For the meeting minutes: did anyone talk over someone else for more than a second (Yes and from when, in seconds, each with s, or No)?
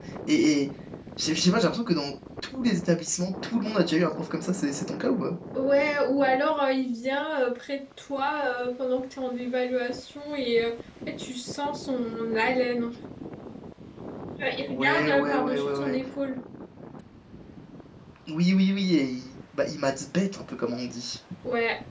Yes, from 14.7 s